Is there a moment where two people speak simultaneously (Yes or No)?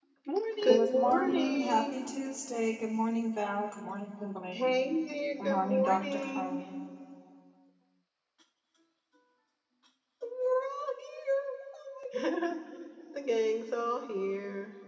Yes